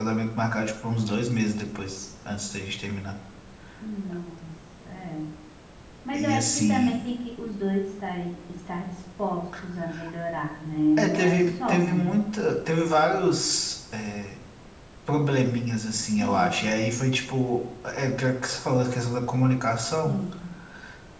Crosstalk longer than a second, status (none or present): present